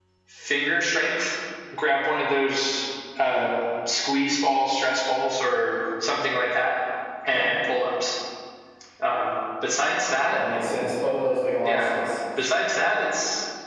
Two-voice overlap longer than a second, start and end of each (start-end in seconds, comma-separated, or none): none